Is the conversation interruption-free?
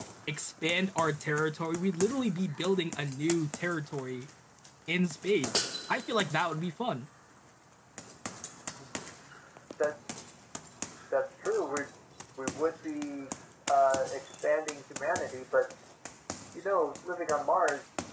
Yes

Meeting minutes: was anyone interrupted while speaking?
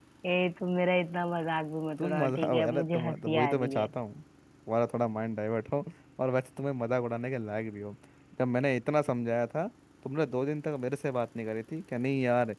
Yes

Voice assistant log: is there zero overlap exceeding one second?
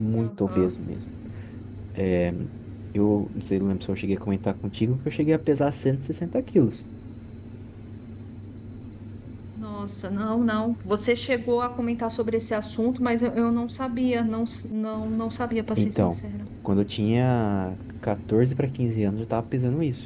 Yes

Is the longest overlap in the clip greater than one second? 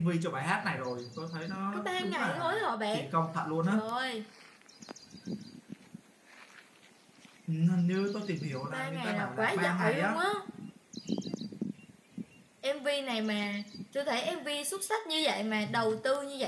Yes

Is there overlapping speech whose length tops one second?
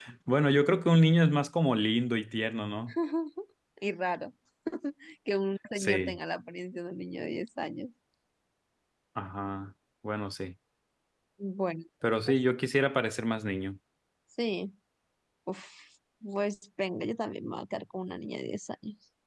No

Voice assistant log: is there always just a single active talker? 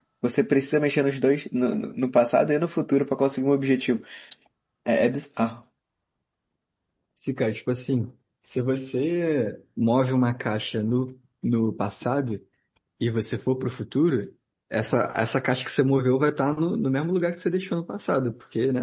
Yes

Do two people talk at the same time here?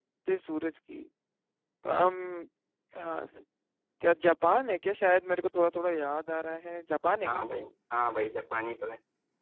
No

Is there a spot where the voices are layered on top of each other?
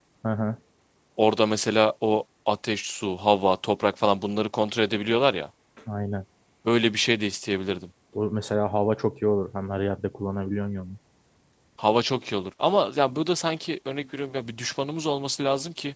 No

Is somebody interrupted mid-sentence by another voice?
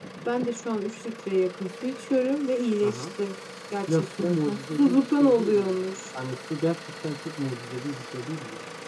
Yes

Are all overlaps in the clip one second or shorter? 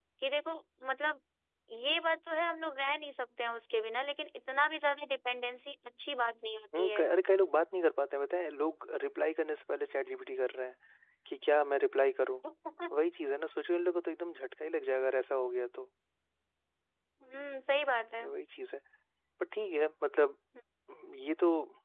Yes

